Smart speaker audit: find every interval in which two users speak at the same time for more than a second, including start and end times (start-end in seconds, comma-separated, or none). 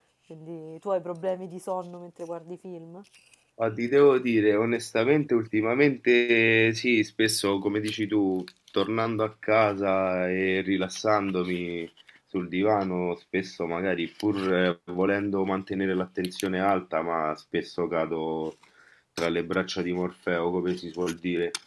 none